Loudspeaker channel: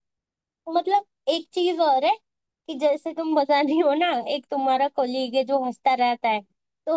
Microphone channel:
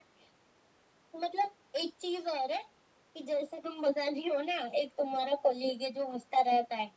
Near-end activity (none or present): none